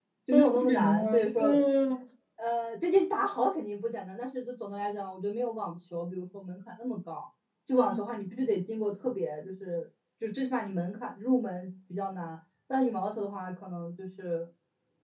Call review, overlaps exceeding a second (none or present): present